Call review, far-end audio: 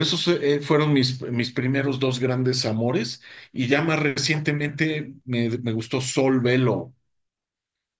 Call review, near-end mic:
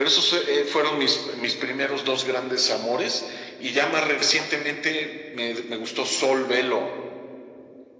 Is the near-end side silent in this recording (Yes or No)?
Yes